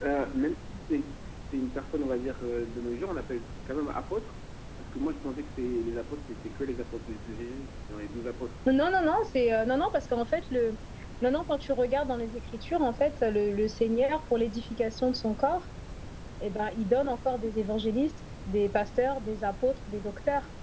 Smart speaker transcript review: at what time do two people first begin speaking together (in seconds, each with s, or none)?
none